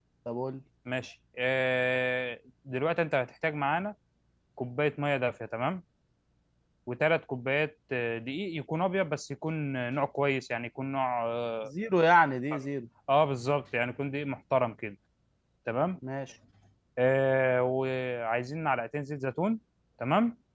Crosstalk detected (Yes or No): No